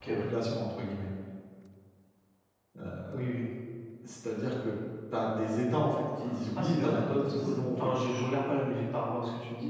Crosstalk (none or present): present